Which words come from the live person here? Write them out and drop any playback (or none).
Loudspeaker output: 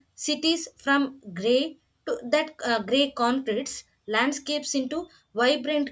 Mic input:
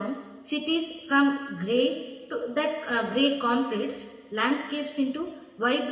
none